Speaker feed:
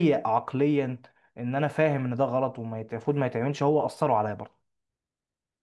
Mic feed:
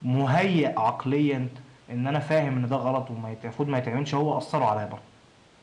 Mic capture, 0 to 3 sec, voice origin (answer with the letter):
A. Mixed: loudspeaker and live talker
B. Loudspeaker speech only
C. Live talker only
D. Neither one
B